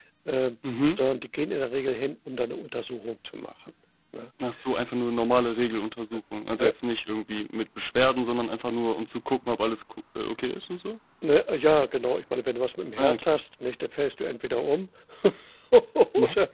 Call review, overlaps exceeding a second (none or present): none